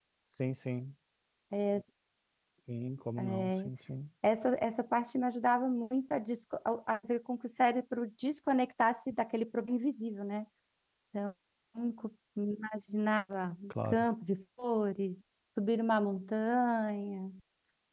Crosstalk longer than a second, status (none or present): none